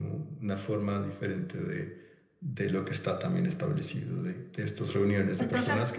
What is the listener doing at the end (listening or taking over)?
listening